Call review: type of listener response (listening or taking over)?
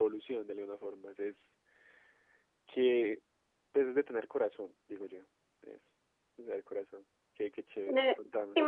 taking over